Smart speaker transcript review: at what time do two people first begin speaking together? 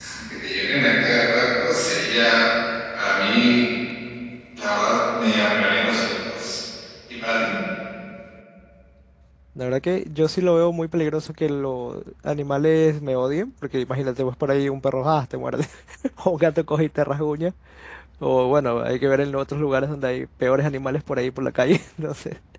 none

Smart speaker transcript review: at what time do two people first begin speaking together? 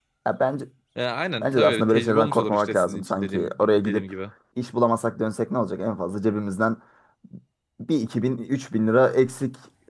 1.4 s

